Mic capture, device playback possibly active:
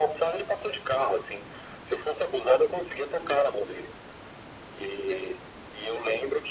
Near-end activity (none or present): none